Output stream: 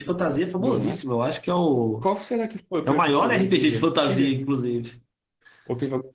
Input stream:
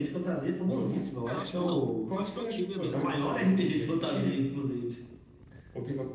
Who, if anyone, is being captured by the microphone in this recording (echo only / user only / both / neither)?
both